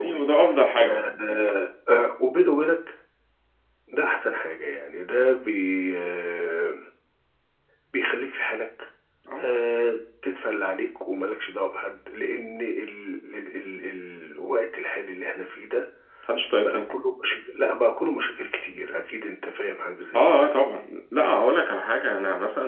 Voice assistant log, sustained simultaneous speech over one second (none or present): none